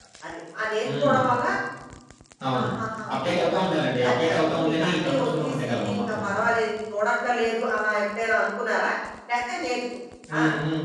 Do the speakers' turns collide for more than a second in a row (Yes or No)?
Yes